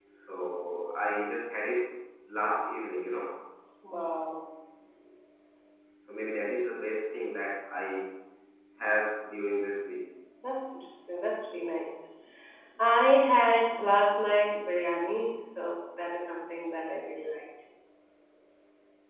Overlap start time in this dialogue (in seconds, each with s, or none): none